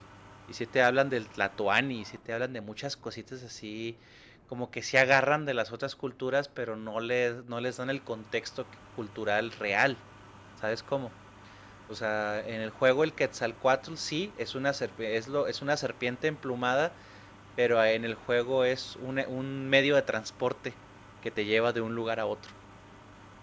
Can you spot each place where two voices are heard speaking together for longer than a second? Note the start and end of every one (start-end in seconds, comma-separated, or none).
none